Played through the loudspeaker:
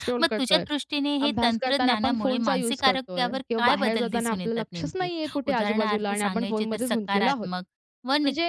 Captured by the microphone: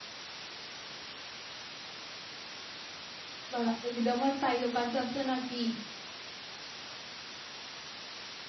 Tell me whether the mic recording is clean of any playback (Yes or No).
Yes